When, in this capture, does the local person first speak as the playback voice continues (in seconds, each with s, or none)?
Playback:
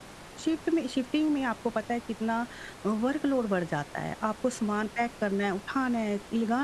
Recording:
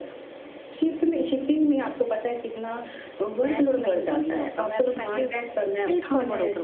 3.3 s